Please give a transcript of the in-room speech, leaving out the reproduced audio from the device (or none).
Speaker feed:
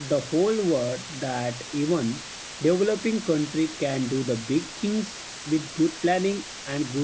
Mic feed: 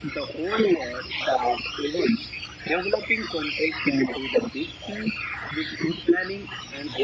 none